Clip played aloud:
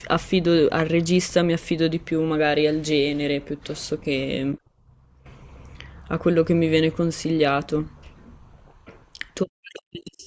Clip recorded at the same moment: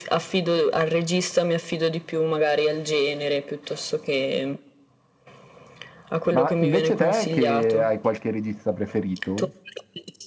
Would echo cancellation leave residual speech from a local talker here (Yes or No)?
Yes